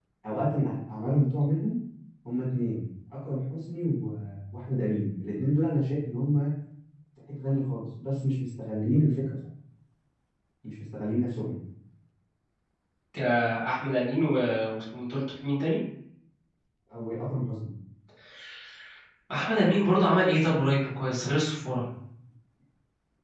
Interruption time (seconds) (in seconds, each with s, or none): none